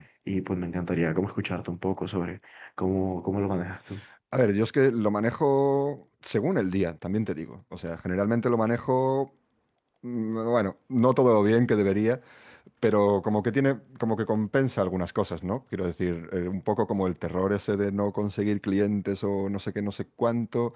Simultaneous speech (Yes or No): No